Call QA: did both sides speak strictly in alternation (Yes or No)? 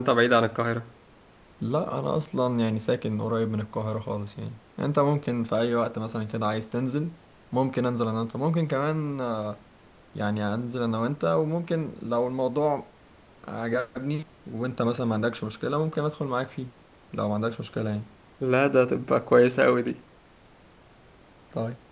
Yes